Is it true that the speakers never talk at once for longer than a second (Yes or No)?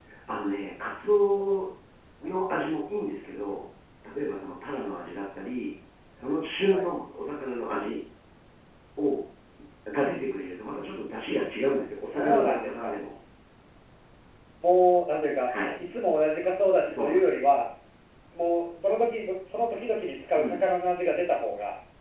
No